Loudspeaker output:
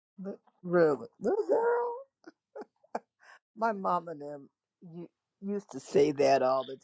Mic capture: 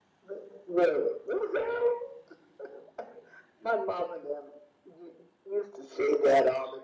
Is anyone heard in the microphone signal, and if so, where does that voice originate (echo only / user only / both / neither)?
echo only